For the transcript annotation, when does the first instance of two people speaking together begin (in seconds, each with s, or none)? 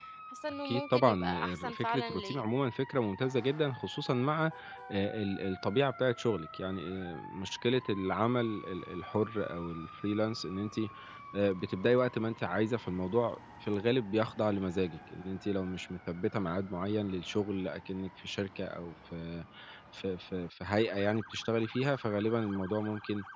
0.7 s